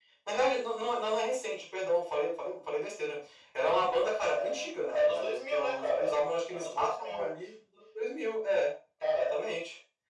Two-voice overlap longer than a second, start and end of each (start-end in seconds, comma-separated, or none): 4.2-7.3